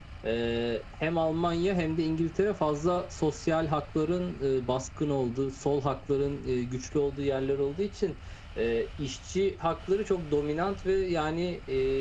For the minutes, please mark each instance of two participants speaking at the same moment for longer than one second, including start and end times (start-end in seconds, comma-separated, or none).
none